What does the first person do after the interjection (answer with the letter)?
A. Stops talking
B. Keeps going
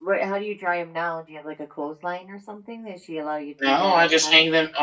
A